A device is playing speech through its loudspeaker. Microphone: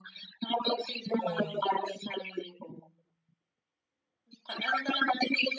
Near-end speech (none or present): present